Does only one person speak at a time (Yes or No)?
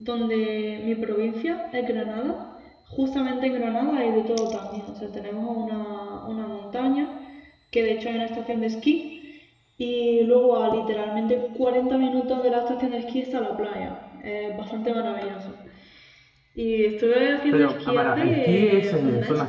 No